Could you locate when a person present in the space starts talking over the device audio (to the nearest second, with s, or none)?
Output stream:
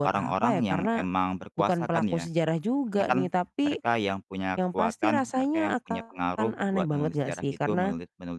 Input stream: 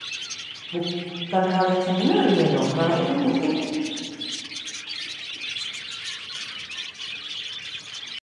1 s